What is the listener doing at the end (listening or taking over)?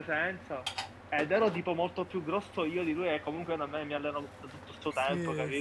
taking over